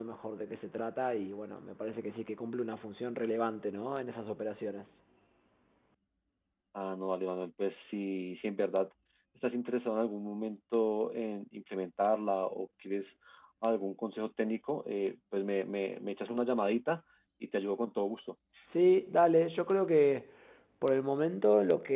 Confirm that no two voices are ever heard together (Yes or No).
Yes